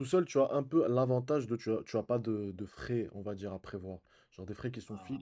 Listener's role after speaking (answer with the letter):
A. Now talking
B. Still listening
B